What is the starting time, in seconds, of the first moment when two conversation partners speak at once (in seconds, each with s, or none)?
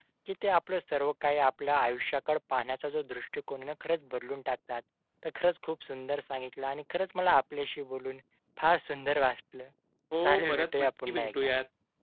10.2 s